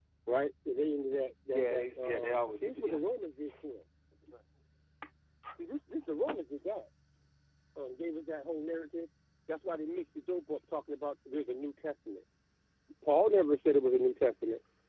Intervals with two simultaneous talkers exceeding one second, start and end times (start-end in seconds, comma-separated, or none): 1.5-3.0